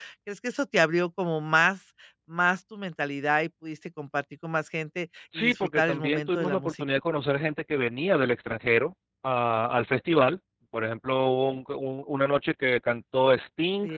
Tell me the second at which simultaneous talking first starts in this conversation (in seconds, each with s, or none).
5.3 s